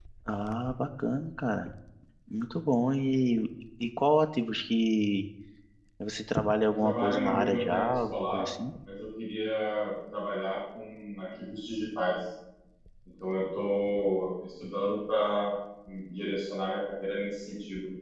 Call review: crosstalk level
present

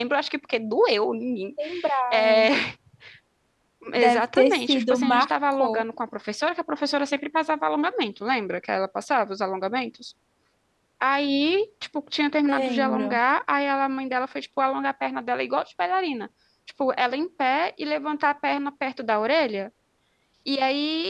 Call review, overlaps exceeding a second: present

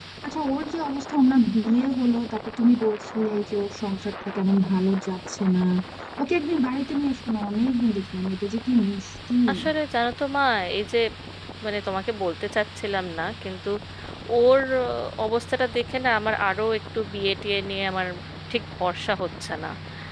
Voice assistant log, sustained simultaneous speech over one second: none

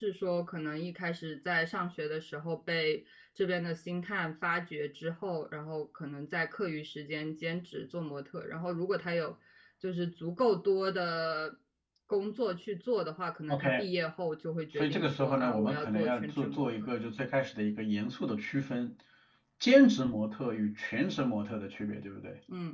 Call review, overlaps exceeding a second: present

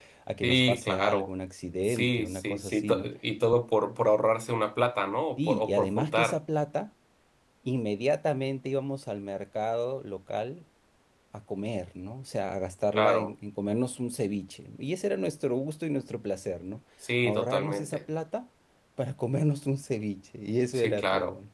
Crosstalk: present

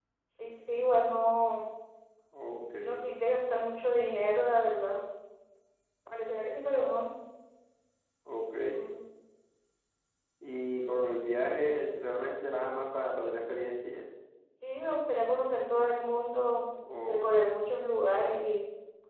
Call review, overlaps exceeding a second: none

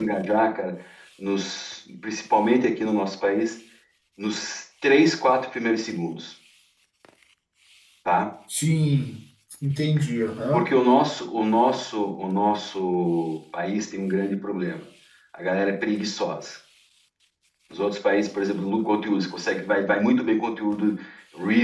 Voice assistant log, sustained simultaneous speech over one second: none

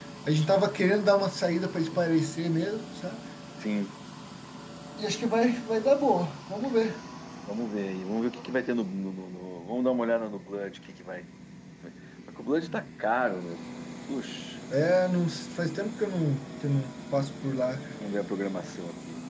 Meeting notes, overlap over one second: none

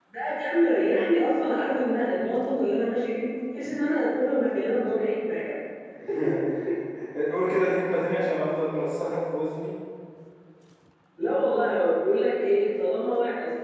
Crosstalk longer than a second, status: none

